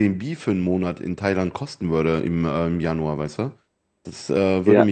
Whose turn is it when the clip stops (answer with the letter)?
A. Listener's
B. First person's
B